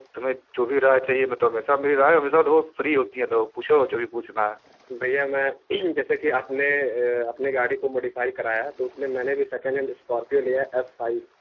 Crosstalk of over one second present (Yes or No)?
No